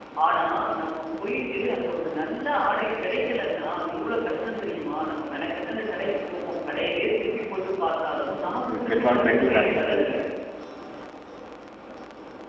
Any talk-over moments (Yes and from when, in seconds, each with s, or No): Yes, from 8.7 s